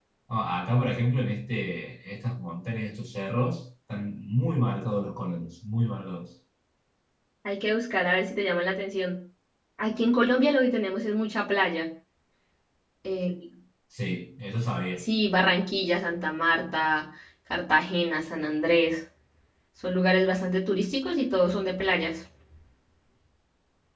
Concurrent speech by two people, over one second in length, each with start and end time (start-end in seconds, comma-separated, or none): none